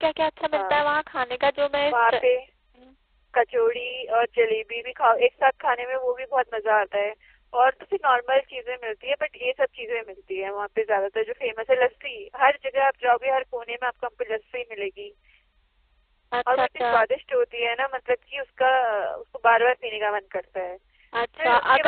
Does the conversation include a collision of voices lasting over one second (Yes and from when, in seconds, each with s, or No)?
No